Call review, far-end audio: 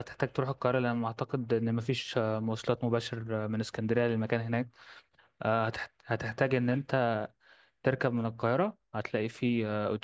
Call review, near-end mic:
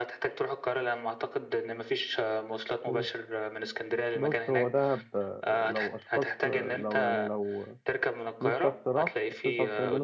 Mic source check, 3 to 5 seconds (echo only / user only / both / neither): both